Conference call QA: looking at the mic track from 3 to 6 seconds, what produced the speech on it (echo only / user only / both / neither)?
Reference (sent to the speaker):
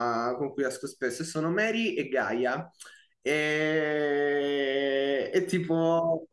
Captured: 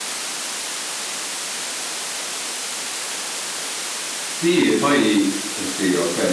user only